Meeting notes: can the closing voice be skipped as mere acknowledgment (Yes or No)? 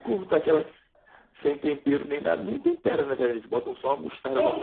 No